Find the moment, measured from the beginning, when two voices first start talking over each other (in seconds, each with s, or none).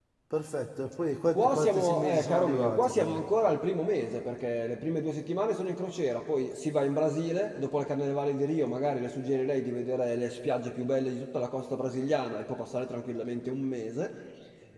1.3 s